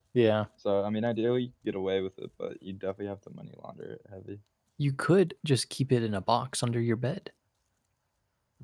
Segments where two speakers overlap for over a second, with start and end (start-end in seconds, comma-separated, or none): none